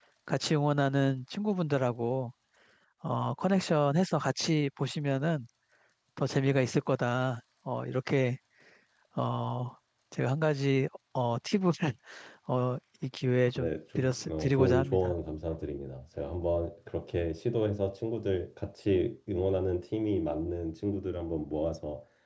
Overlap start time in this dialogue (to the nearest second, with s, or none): 14 s